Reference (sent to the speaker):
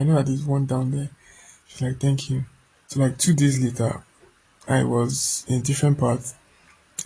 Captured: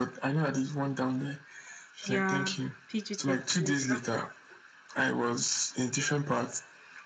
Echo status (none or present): present